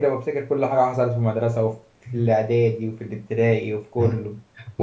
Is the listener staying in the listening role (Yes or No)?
No